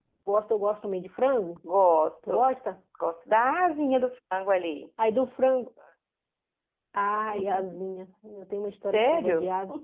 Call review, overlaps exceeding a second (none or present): none